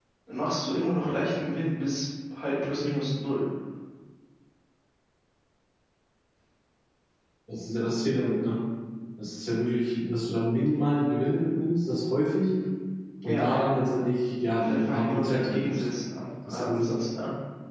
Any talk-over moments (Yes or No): Yes